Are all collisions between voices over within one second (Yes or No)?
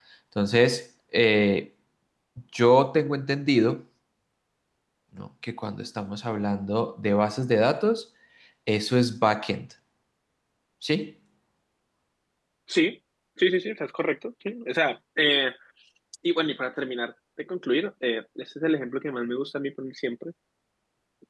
Yes